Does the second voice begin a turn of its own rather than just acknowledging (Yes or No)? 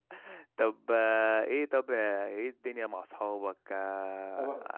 No